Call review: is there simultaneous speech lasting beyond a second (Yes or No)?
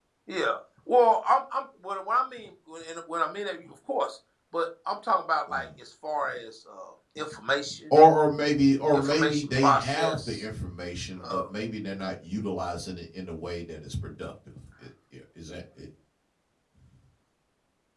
Yes